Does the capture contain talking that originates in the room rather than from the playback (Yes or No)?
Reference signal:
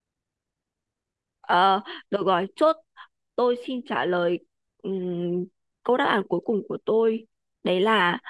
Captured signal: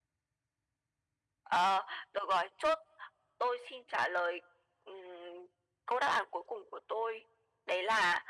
No